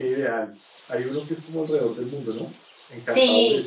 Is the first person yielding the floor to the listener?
Yes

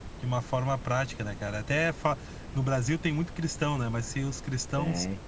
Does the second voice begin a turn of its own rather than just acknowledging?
No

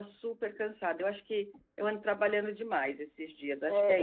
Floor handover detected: Yes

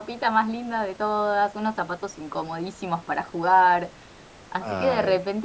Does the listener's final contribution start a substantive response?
No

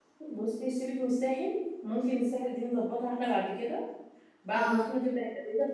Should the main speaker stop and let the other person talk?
No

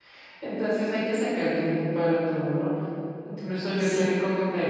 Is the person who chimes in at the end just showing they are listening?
Yes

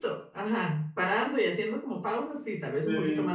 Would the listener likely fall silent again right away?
No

